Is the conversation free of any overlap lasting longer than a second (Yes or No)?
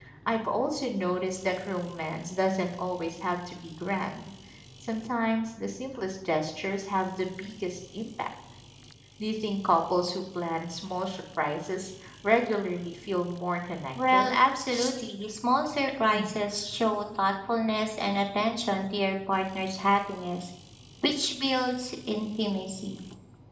Yes